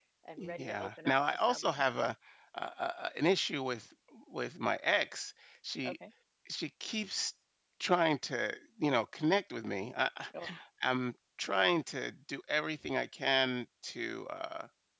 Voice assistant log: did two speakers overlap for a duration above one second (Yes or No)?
Yes